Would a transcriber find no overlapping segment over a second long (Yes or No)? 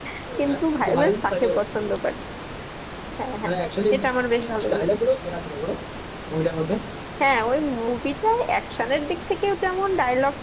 No